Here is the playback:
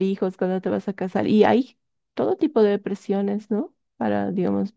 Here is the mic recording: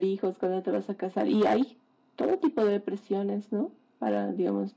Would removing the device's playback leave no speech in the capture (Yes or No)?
Yes